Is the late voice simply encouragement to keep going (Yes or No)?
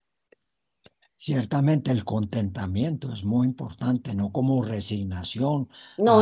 Yes